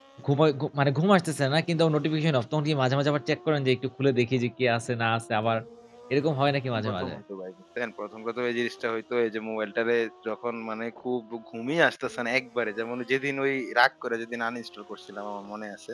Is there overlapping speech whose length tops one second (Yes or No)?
No